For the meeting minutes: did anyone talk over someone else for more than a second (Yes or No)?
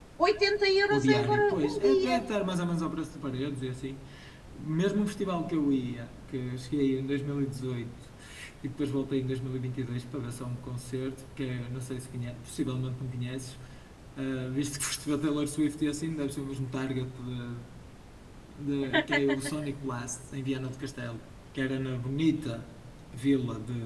Yes